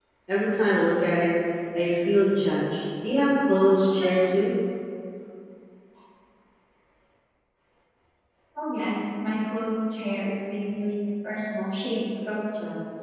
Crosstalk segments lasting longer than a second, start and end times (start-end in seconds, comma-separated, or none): none